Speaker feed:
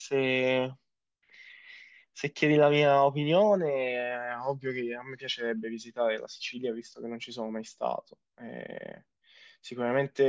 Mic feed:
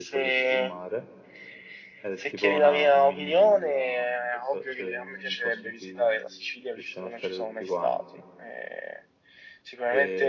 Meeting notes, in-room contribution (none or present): present